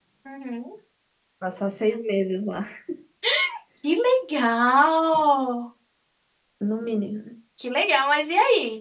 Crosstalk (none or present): none